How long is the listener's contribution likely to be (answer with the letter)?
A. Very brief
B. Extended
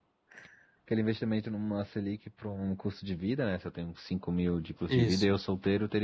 A